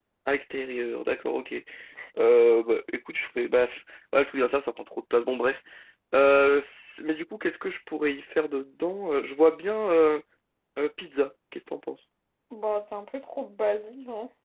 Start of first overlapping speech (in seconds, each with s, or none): none